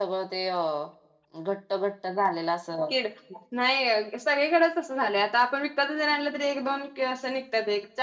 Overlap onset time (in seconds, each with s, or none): none